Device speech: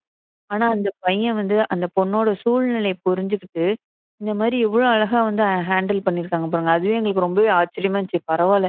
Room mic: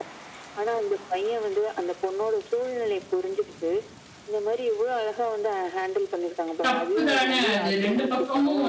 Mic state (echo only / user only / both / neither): both